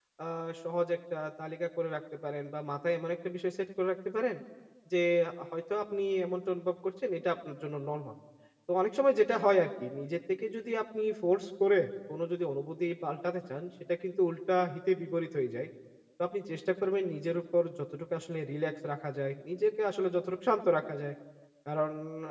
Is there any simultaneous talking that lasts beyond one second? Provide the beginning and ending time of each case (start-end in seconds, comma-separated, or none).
none